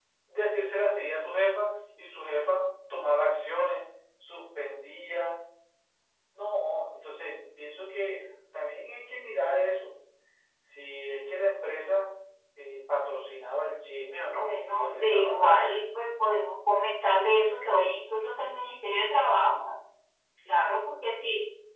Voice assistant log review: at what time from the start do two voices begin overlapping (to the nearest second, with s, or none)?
14 s